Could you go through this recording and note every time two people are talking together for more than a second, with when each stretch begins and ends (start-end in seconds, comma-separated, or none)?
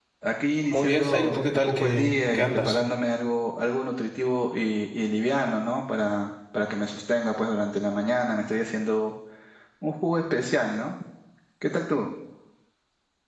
0.7-2.8